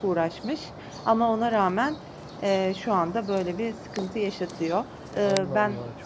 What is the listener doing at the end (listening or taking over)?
taking over